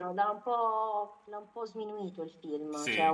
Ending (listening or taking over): listening